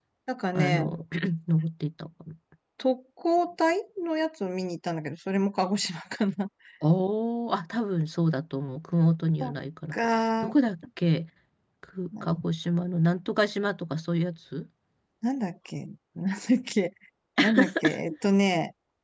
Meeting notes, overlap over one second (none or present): none